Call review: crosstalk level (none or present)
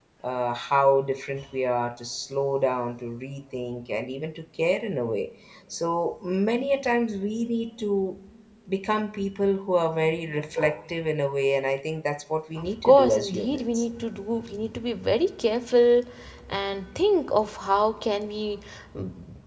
present